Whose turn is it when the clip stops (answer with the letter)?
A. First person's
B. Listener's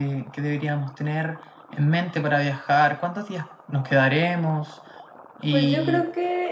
B